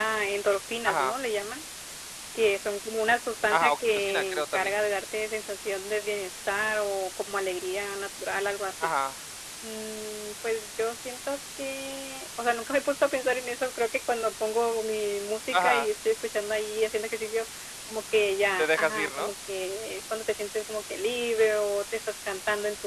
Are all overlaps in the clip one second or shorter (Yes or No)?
No